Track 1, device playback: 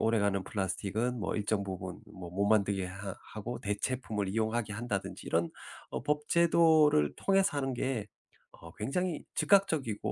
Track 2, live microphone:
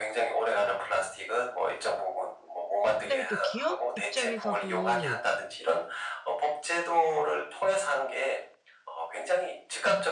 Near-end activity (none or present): present